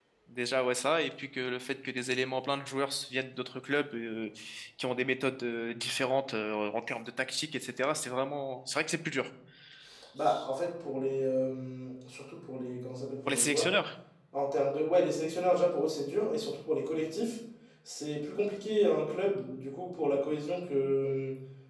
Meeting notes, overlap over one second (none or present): none